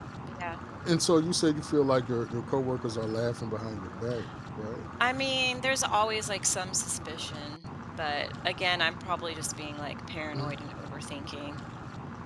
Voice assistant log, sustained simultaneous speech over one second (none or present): none